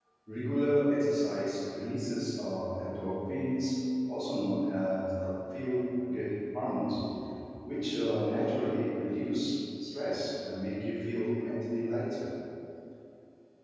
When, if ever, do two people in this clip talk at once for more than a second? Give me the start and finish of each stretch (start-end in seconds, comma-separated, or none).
none